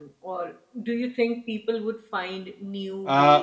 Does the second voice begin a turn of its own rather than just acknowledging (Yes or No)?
Yes